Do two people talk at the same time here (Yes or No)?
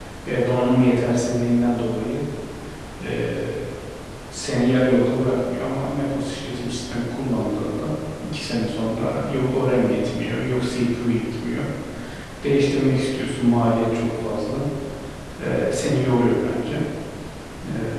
No